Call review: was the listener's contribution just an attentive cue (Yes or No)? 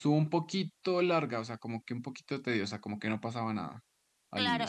No